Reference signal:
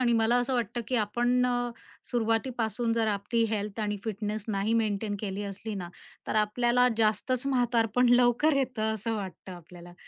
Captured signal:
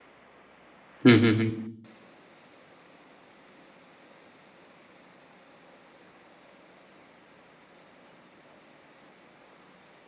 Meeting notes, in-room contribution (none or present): present